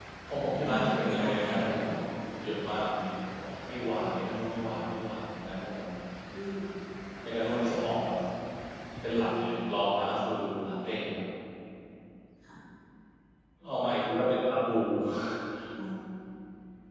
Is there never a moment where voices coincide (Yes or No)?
No